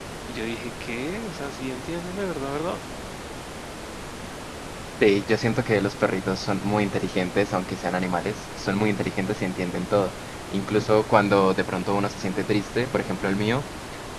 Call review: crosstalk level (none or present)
none